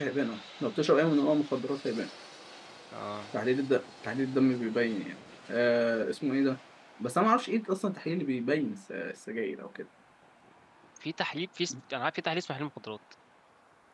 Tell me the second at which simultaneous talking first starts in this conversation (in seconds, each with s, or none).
none